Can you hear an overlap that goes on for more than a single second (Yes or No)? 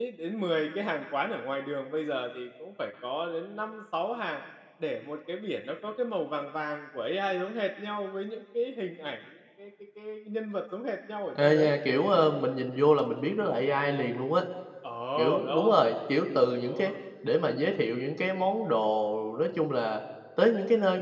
No